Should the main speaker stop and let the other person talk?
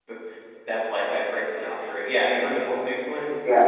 Yes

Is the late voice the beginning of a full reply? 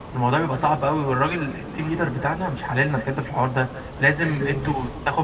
No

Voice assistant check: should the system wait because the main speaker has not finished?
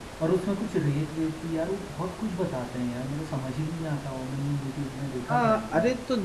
No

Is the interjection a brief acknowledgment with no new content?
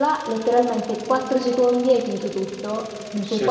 Yes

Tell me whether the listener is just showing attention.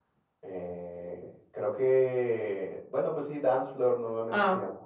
No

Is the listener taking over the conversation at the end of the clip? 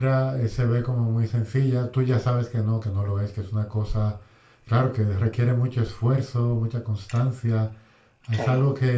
No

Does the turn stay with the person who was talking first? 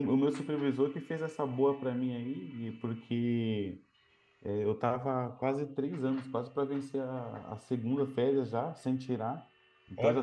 Yes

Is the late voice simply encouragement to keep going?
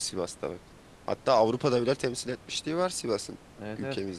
No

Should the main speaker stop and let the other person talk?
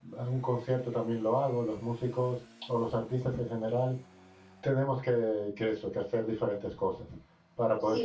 Yes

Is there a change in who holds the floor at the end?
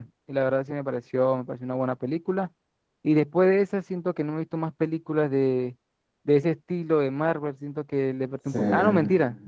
No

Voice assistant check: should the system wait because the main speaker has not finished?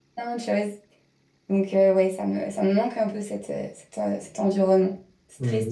No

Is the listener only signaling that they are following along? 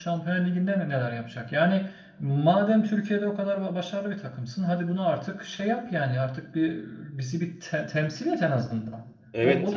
No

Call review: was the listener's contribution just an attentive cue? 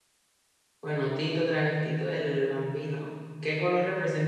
Yes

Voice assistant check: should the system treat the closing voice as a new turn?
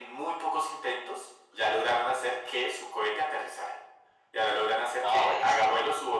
No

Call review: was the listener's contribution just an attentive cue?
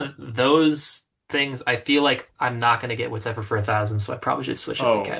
No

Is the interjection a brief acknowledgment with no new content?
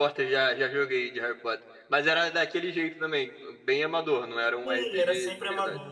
No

